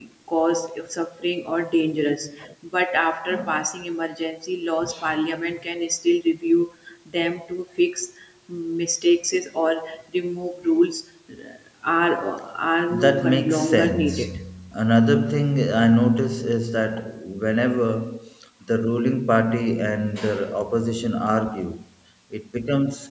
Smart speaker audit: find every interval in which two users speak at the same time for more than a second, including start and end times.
12.9-14.3

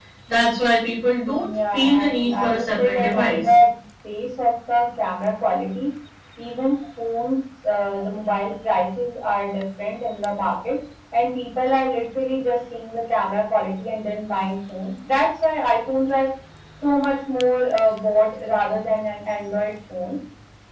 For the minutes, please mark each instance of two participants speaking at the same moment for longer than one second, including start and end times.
1.4-3.5

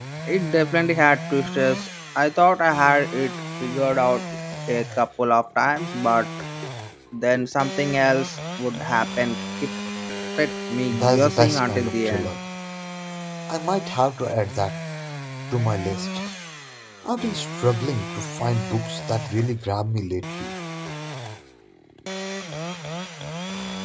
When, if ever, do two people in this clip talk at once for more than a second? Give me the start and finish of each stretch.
10.9-12.3

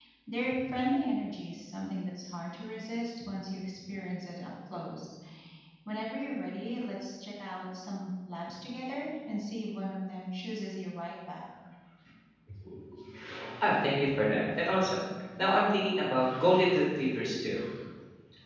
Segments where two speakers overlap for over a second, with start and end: none

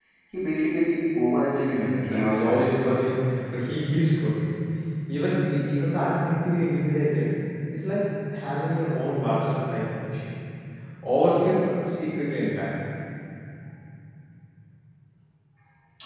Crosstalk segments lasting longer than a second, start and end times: 1.7-2.9

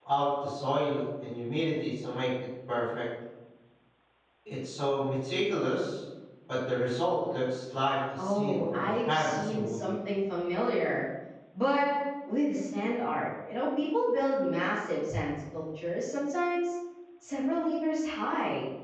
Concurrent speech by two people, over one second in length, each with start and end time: 8.2-9.8

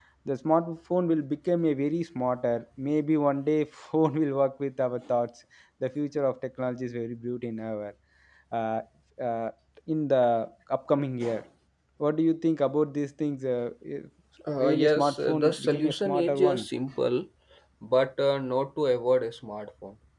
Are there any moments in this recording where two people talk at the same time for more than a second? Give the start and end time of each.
14.6-16.7

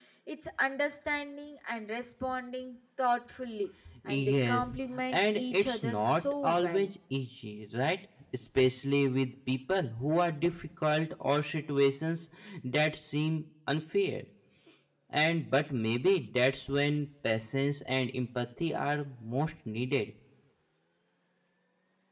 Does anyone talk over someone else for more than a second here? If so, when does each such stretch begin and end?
4.0-6.9

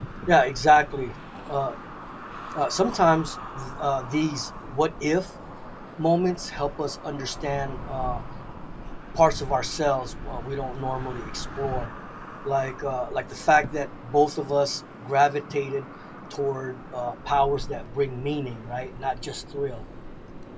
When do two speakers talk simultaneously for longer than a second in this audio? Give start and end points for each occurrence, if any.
none

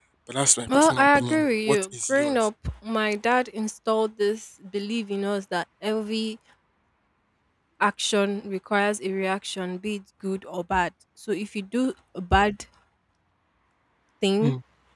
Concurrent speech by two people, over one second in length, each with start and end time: 0.7-2.3

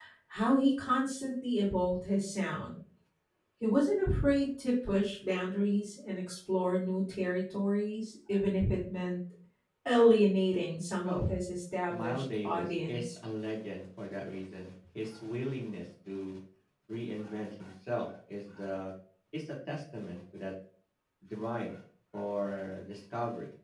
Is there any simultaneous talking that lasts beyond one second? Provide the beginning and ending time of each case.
11.9-13.1

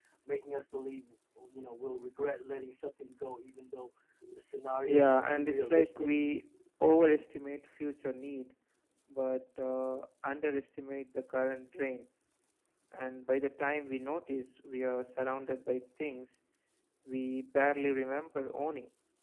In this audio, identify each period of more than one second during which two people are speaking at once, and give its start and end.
4.8-6.1

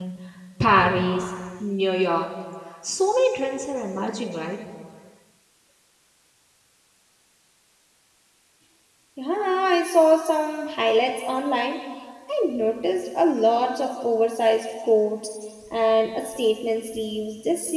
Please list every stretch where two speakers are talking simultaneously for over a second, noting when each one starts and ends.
none

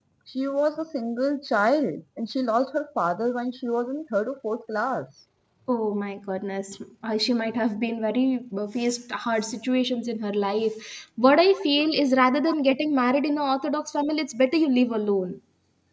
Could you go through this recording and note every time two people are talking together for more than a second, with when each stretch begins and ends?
none

